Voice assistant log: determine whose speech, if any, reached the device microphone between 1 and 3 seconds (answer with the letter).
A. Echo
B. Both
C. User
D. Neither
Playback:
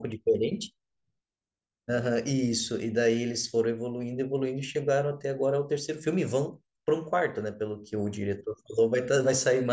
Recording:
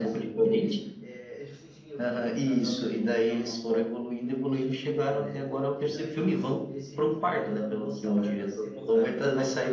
B